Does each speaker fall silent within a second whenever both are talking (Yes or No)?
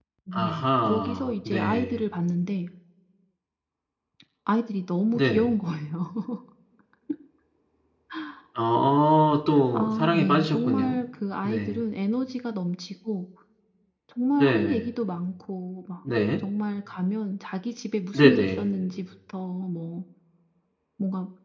No